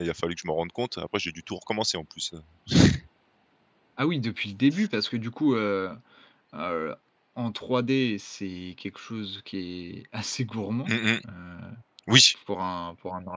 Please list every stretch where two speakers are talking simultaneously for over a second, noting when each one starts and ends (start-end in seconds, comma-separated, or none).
none